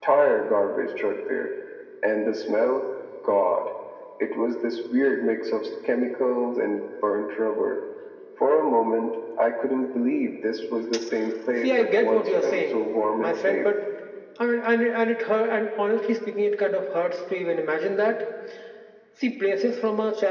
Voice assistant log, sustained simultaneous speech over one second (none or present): present